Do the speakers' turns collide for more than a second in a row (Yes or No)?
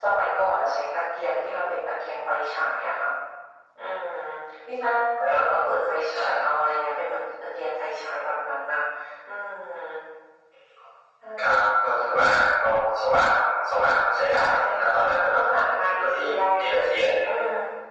No